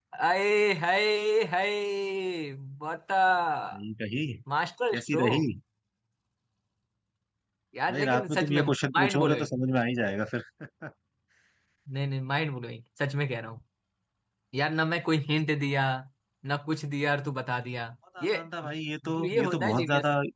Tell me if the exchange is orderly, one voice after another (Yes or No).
No